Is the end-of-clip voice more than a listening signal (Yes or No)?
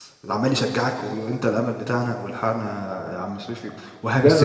Yes